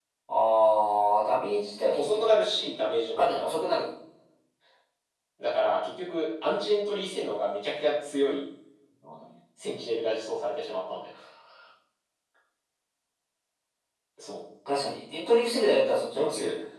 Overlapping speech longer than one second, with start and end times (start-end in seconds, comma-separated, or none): none